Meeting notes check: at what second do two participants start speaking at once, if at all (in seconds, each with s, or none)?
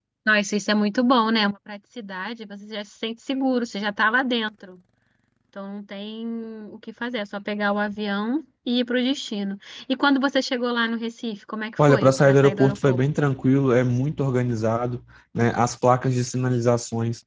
11.8 s